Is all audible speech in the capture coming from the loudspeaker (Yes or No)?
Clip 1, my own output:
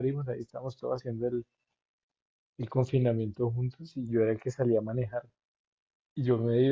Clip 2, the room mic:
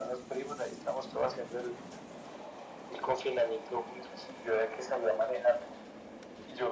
Yes